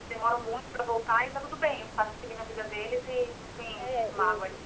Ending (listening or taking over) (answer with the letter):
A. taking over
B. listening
A